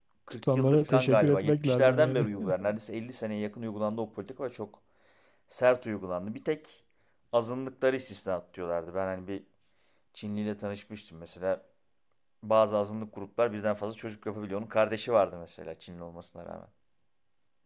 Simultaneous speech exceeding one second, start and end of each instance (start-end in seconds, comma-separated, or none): 0.5-2.3